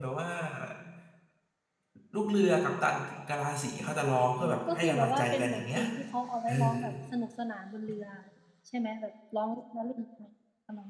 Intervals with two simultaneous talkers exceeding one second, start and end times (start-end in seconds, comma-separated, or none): 4.4-5.8